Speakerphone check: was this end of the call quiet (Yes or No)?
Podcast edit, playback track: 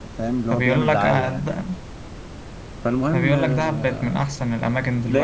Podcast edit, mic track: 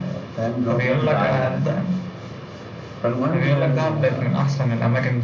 Yes